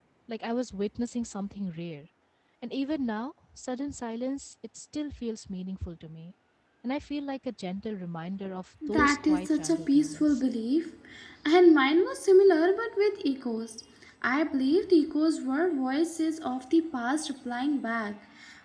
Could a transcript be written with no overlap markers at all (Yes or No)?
No